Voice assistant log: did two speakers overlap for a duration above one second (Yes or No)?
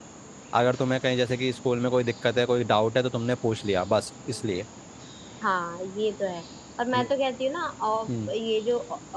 No